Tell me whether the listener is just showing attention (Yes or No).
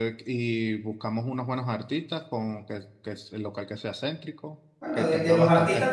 No